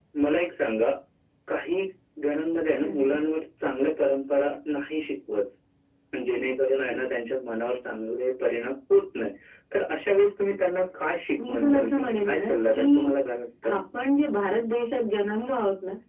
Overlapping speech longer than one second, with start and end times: 11.4-13.1

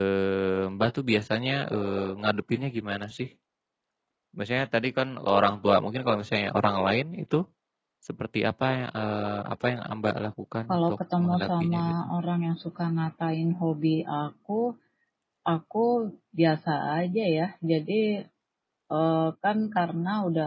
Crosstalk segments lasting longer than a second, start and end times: 10.7-11.9

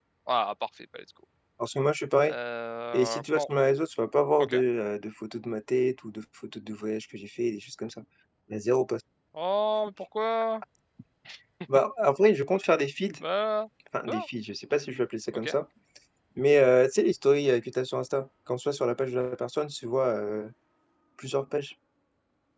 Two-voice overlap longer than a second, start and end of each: none

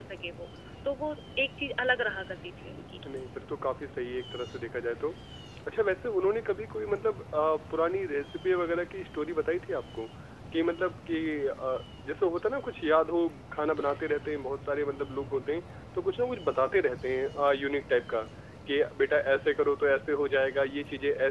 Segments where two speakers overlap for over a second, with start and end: none

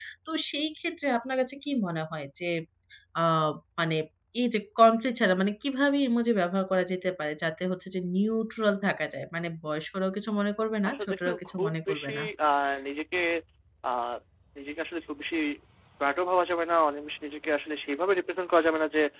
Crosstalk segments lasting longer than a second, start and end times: 10.8-12.2

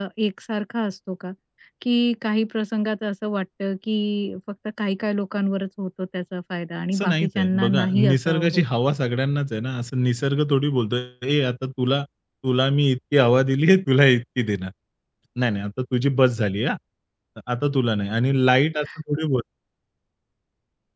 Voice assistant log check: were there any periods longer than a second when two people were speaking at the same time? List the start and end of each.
6.9-8.6

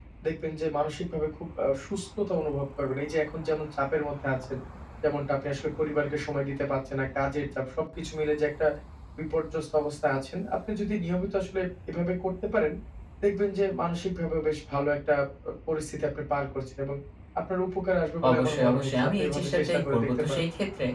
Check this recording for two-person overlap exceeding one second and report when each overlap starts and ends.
18.3-20.4

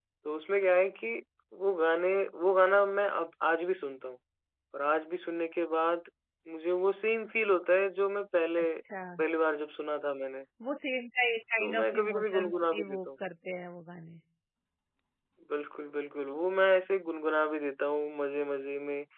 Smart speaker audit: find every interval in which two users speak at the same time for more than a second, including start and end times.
11.6-13.2

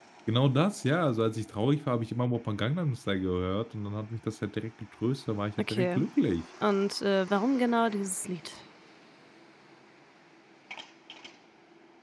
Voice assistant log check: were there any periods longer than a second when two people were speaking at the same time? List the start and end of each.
none

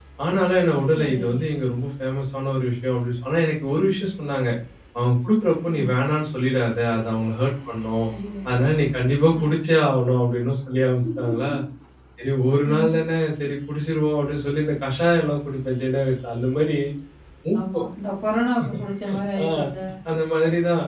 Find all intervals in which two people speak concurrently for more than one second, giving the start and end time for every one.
none

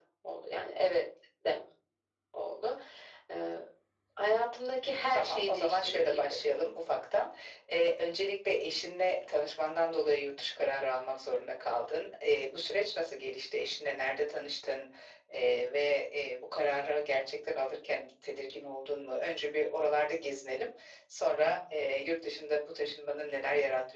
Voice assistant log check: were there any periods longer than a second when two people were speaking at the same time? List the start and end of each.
5.1-6.4

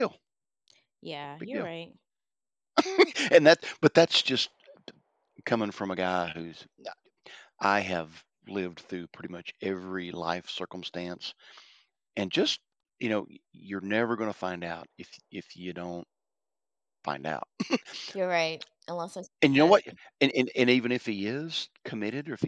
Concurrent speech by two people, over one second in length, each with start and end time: none

